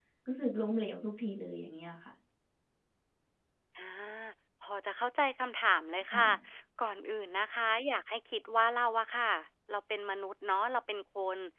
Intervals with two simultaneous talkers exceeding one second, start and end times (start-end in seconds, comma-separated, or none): none